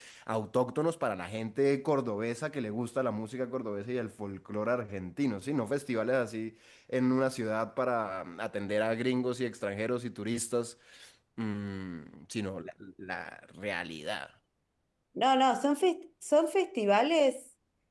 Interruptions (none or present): none